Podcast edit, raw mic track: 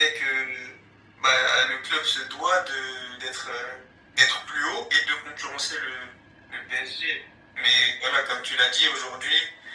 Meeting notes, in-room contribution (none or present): none